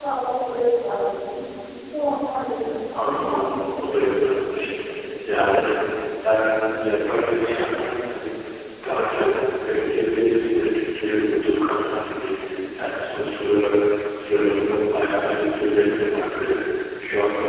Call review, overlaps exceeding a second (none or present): present